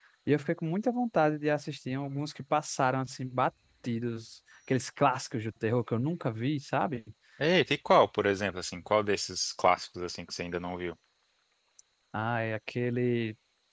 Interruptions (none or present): none